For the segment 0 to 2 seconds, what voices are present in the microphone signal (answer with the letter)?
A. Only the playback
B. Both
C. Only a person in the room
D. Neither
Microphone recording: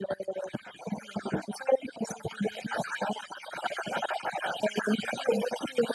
A